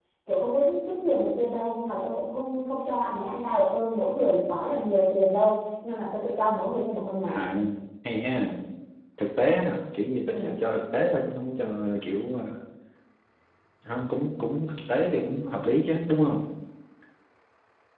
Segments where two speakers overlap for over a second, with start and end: none

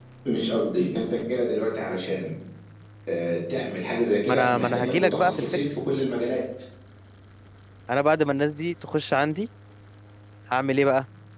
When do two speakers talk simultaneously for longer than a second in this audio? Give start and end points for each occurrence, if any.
4.3-5.6

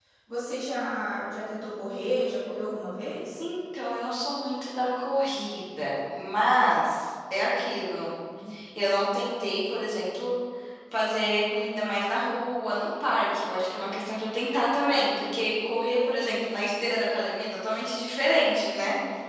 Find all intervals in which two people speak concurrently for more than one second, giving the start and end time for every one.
none

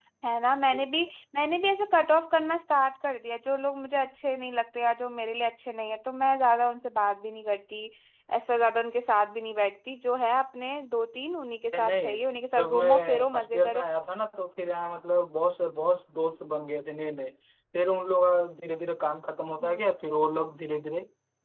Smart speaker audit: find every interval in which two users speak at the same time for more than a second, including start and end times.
12.5-13.8

